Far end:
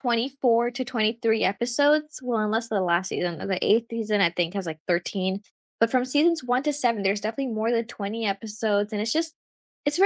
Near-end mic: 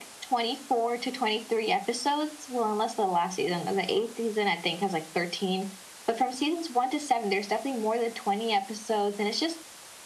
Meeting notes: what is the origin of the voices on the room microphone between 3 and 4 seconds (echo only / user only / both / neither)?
echo only